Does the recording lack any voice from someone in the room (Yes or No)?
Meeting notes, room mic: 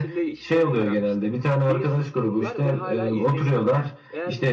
No